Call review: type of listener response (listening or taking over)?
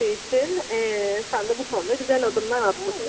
listening